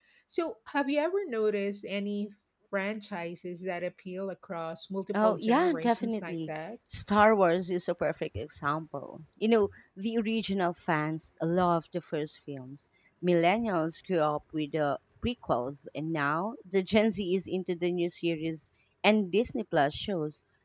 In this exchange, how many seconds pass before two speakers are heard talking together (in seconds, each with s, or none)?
5.1 s